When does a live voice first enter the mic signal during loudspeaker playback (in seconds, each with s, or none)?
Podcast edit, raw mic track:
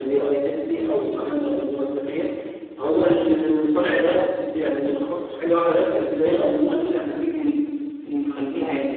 none